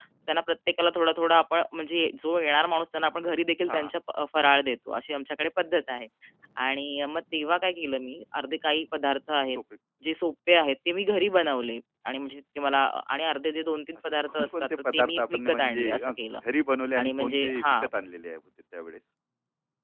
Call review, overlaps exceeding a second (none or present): present